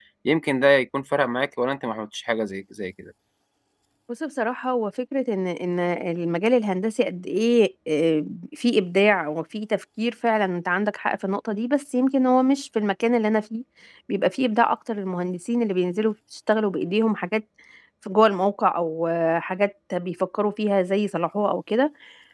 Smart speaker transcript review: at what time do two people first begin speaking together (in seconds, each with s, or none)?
none